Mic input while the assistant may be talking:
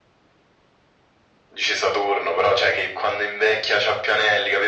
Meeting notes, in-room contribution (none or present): none